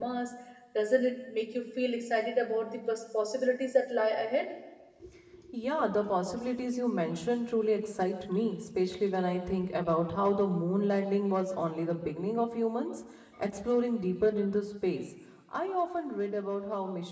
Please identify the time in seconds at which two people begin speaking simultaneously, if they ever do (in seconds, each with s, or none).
none